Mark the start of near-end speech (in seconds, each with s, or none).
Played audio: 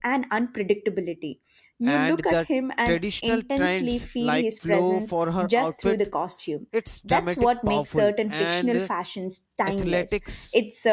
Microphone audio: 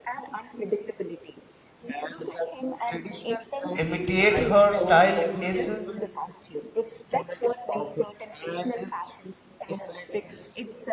3.8 s